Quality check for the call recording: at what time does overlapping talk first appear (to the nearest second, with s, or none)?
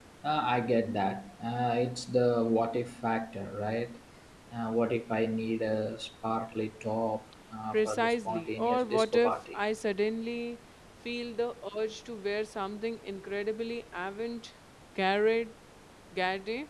8 s